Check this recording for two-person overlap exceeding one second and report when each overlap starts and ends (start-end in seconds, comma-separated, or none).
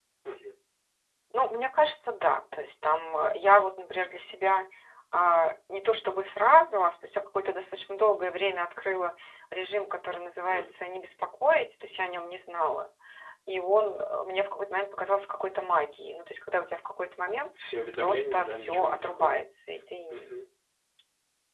18.0-19.4